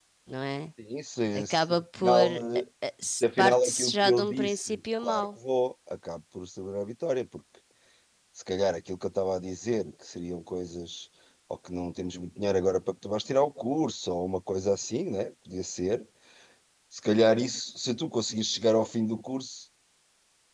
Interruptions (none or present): present